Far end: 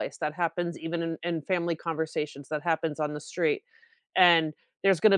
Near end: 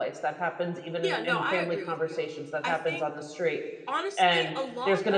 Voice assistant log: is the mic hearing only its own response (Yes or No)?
No